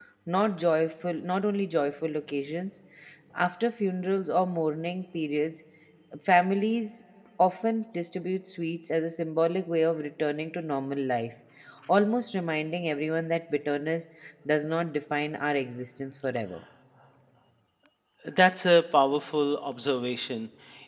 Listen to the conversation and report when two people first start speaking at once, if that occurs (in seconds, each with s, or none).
none